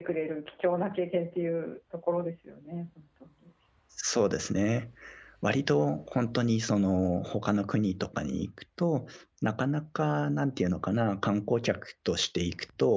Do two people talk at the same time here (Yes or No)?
No